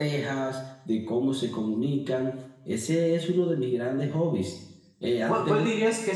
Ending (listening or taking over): taking over